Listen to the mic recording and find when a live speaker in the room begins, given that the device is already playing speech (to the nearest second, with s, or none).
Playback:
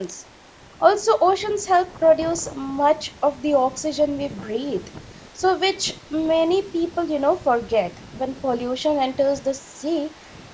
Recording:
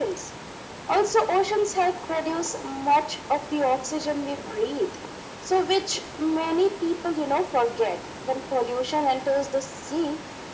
none